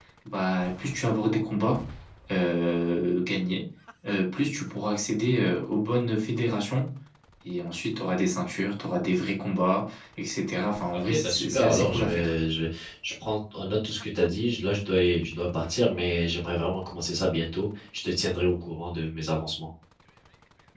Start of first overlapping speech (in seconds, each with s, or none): 10.9 s